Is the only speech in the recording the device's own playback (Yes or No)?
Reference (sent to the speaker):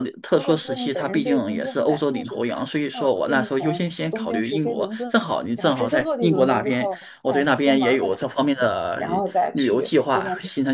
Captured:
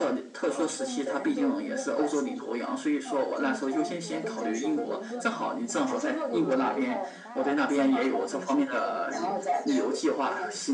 No